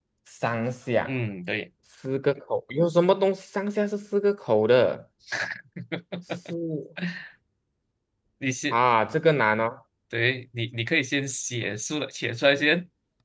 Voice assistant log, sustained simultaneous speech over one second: none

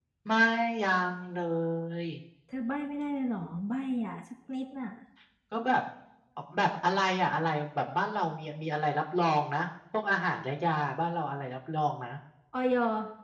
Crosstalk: none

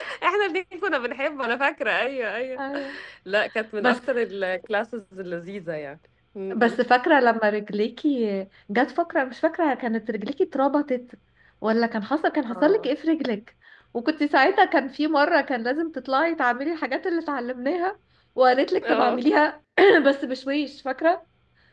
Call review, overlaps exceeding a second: none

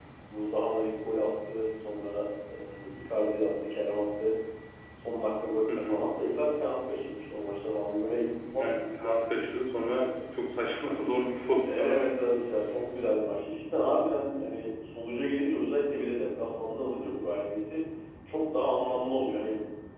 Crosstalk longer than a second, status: none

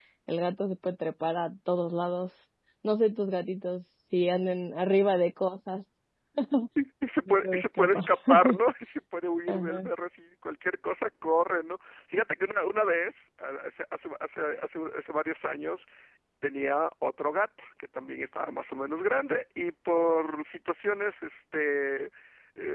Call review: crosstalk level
present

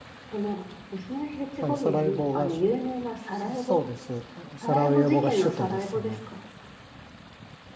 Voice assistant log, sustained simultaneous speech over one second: present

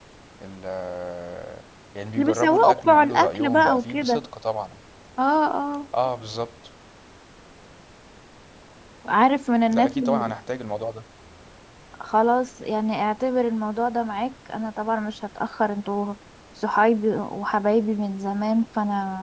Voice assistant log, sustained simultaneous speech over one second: present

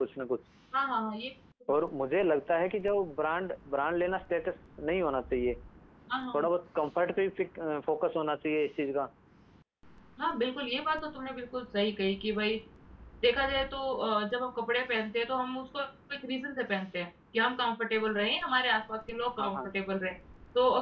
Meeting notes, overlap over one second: none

